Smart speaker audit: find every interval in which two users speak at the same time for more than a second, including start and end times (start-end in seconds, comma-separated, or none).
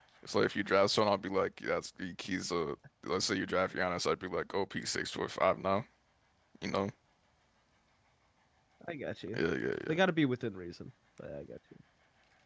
none